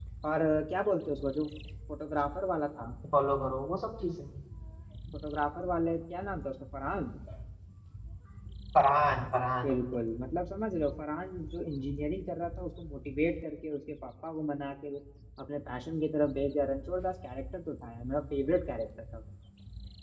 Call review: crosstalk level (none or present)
none